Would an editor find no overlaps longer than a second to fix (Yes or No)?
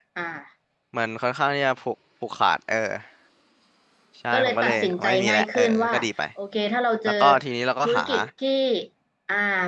No